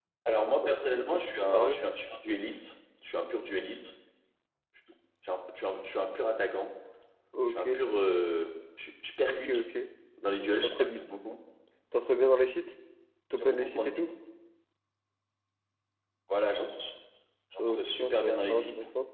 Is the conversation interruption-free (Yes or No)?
No